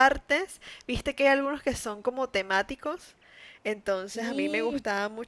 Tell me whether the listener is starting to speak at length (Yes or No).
No